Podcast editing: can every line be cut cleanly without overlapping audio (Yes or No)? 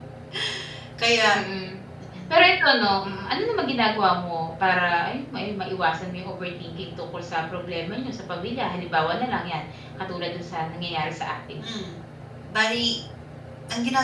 Yes